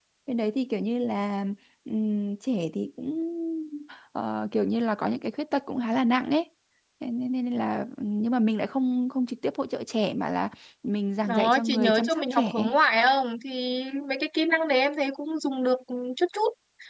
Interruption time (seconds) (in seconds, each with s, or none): 11.2 s